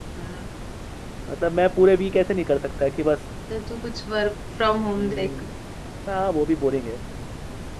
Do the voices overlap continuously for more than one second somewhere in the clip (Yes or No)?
No